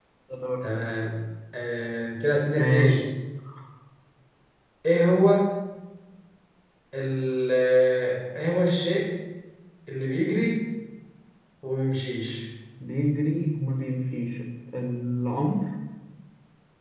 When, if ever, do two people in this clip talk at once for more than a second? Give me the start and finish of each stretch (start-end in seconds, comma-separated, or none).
none